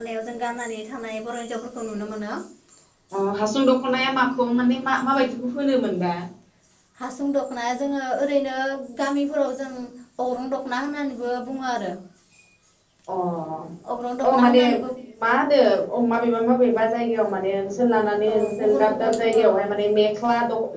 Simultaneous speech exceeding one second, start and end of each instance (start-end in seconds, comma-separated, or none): 18.3-19.6